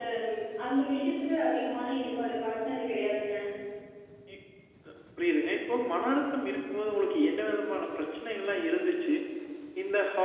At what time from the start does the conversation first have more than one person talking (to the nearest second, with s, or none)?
none